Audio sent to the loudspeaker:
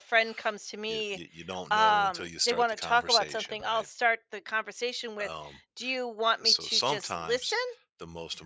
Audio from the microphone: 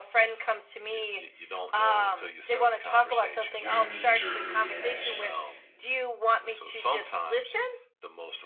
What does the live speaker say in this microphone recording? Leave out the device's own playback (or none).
your knee jerk reaction.